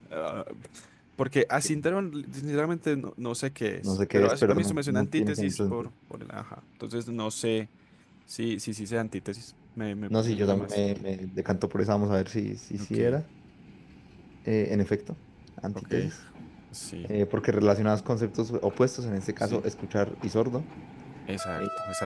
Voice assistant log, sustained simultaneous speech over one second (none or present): present